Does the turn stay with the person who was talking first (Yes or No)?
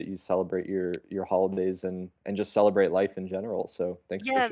No